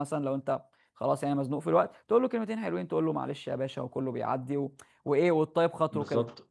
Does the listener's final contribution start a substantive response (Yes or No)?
Yes